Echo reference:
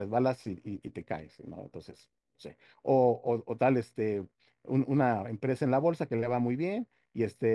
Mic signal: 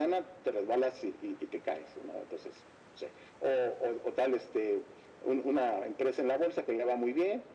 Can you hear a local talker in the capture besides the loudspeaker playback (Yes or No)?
No